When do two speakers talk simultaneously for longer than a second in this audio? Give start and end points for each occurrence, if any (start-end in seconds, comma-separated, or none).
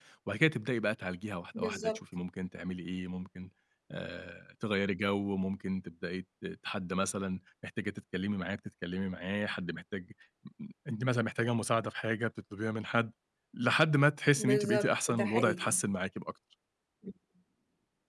14.4-15.8